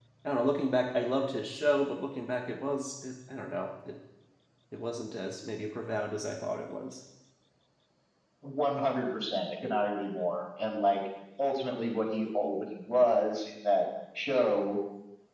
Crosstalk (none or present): none